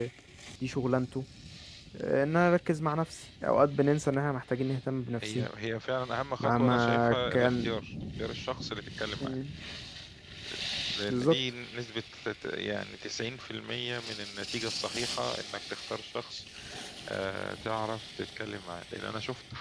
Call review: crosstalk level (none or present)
present